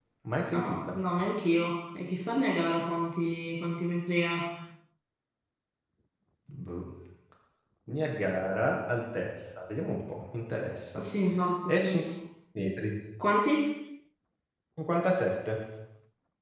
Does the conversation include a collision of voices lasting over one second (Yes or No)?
No